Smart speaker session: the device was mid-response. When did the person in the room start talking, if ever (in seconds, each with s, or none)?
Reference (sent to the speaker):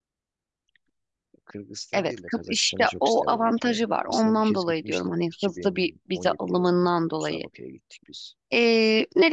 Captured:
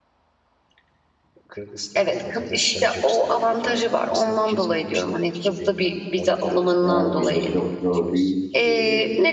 6.8 s